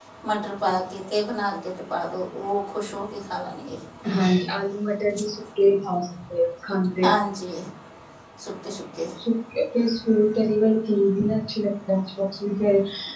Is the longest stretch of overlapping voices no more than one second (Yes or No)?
Yes